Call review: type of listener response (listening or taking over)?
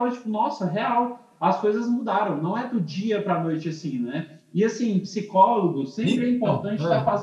listening